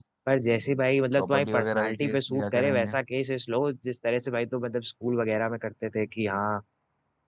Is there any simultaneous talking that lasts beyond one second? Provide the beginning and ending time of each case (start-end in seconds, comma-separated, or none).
1.1-2.9